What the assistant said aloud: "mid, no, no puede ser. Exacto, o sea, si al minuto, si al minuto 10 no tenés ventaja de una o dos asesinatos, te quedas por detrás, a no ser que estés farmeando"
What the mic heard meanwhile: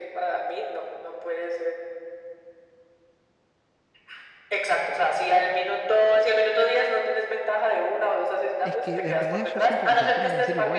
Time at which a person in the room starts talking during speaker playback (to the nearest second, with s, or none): 9 s